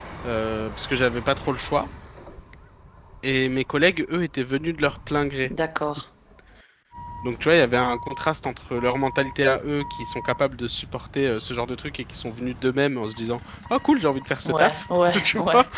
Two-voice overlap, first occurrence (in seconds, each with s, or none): 14.4 s